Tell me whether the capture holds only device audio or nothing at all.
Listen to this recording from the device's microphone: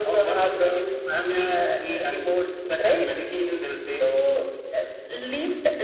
Yes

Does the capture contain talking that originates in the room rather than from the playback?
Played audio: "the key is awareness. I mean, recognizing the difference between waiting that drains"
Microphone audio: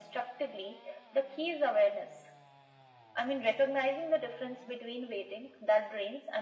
No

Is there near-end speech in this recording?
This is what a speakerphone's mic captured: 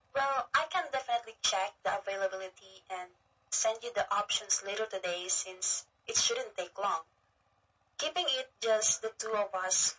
No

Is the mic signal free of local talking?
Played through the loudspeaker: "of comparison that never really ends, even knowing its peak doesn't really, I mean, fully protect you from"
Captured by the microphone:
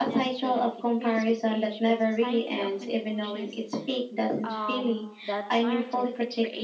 No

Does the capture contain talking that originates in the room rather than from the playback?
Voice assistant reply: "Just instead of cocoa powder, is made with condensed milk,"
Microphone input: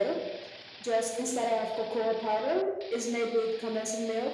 No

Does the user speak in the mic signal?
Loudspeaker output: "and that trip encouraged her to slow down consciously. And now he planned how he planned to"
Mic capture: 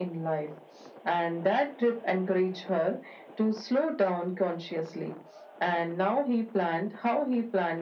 No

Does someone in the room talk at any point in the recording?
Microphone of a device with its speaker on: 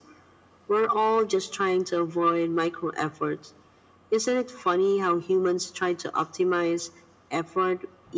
No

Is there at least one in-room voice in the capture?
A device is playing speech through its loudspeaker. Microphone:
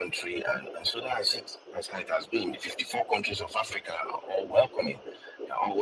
No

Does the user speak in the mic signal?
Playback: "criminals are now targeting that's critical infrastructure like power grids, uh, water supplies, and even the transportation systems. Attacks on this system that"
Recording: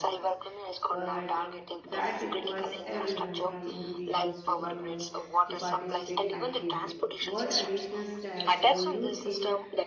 Yes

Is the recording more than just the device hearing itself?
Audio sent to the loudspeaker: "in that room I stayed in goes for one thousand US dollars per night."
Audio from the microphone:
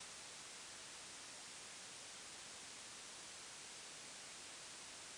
No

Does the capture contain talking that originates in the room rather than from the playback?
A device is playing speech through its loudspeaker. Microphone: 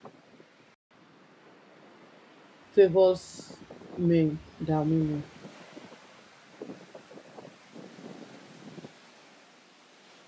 Yes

